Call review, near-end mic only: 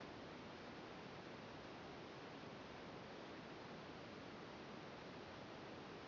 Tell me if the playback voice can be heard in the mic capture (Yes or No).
No